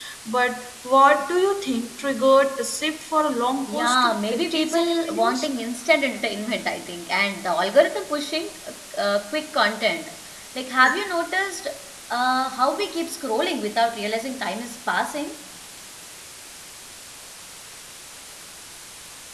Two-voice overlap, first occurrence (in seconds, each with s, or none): 3.7 s